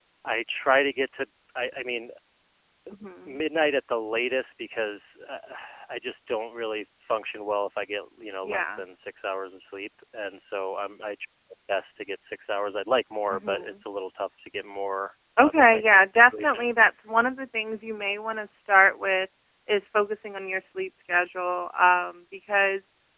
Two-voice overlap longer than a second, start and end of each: 15.4-16.6

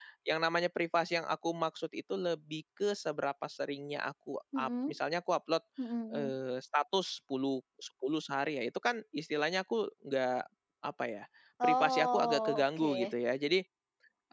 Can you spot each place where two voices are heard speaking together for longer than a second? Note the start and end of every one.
11.6-13.1

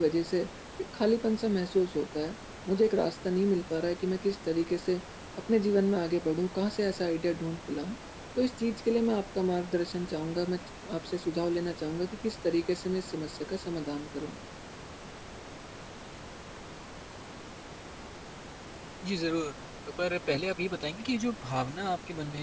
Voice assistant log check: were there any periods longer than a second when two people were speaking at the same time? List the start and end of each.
none

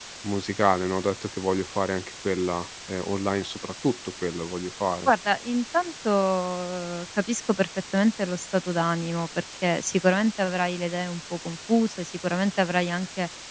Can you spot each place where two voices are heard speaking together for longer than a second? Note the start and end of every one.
none

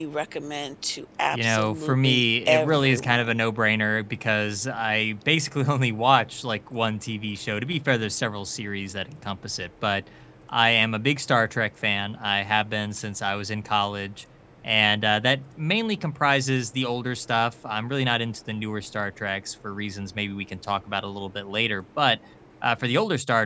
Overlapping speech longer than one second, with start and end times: 1.3-3.3

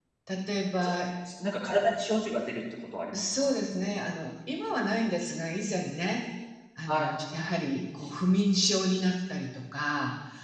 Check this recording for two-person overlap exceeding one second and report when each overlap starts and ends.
none

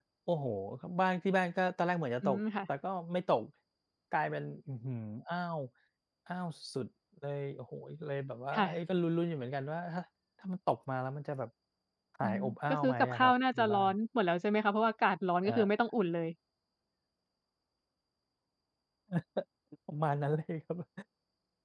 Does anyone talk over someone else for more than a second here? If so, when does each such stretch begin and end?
12.2-13.9

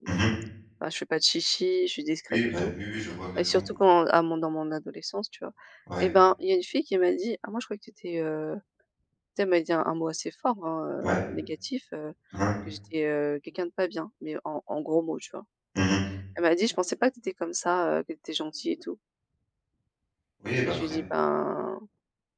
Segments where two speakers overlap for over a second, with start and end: none

